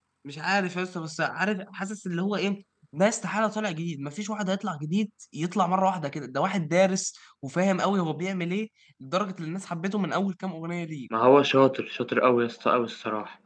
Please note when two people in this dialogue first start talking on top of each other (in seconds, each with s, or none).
none